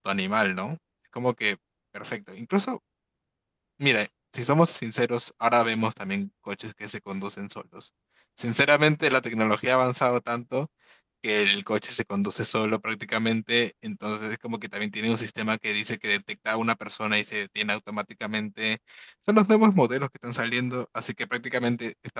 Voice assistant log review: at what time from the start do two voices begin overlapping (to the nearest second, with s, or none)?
none